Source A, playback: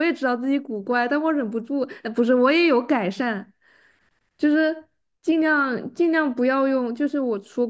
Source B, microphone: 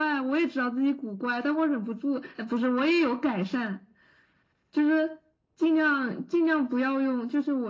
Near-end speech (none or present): none